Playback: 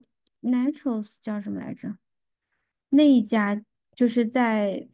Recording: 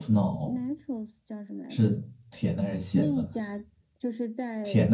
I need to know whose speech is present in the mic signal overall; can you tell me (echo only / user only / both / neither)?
both